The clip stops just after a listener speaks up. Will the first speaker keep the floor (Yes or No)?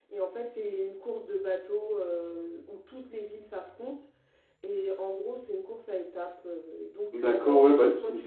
No